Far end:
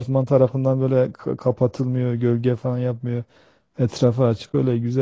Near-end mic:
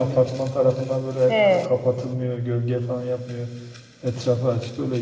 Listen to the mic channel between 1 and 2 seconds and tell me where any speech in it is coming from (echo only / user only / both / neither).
both